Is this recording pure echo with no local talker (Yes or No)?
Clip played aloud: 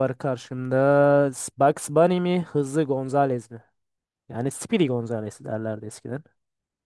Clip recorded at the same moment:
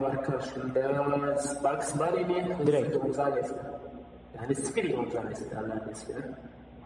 No